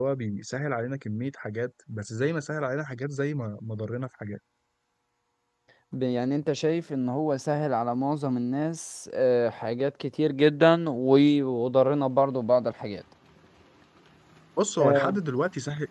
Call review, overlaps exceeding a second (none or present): none